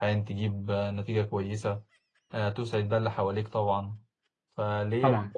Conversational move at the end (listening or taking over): listening